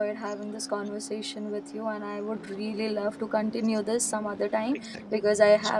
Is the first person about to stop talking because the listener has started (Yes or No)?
No